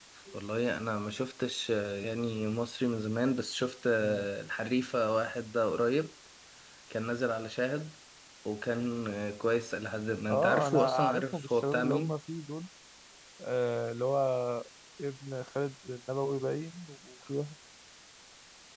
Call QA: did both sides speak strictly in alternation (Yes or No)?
No